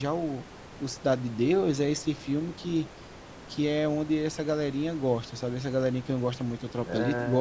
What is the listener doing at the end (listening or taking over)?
taking over